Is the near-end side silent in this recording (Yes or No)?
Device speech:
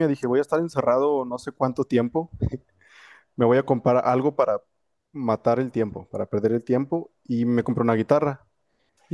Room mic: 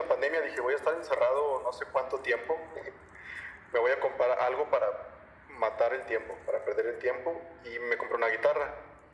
Yes